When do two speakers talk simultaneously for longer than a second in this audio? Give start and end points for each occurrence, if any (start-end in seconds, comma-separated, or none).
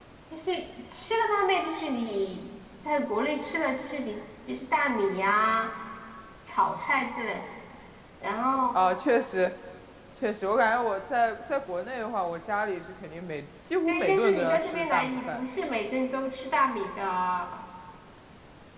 13.9-15.5